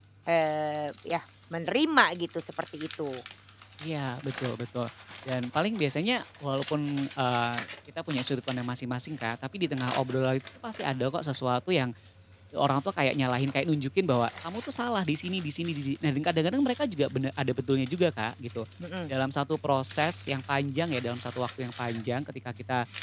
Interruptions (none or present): none